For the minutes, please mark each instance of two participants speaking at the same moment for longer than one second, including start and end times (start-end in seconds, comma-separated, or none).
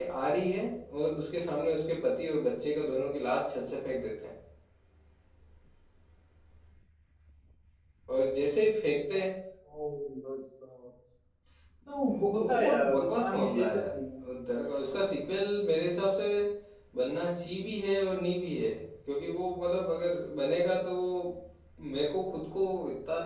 12.1-13.9